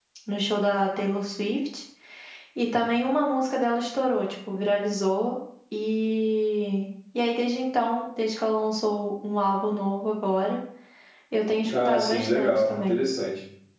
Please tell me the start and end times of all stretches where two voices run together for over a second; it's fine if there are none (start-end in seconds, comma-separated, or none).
11.7-13.0